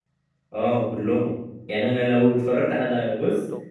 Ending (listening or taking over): listening